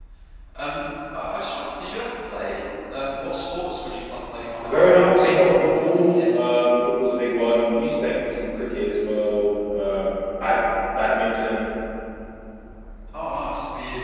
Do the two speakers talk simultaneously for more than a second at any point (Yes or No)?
Yes